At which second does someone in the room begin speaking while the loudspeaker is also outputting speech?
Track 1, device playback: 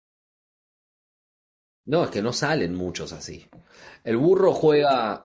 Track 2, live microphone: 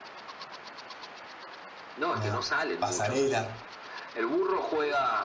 2.1 s

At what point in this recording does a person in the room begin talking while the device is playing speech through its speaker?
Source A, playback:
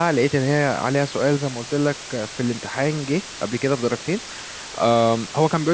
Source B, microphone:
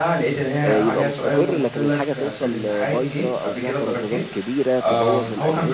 0.6 s

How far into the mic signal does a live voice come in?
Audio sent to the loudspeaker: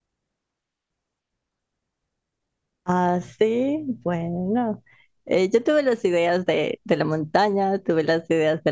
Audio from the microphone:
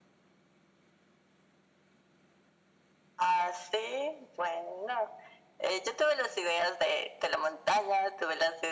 none

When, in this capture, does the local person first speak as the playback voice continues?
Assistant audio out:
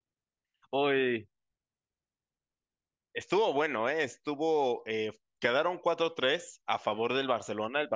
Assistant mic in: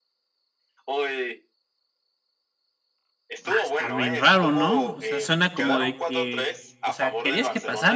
3.4 s

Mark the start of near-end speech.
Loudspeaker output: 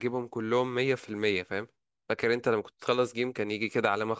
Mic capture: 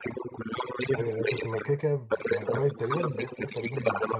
0.9 s

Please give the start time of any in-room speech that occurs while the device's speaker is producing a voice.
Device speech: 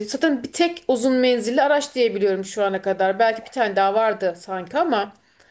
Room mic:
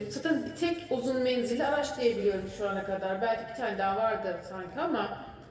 none

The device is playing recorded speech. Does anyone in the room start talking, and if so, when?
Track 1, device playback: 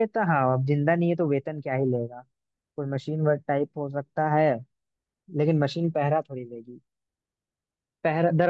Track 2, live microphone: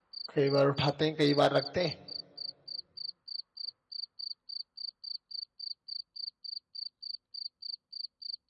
0.3 s

